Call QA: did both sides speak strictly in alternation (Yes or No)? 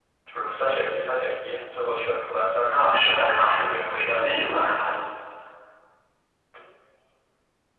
No